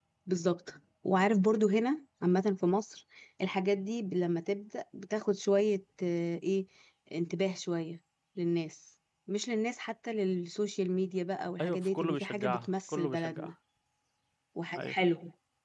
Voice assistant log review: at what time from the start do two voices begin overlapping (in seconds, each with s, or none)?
11.6 s